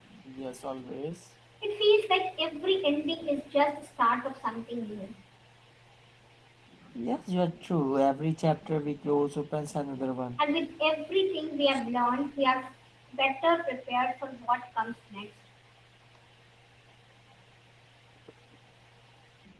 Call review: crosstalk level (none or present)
none